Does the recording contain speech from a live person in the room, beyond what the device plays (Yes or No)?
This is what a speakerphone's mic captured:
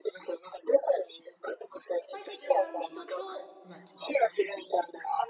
Yes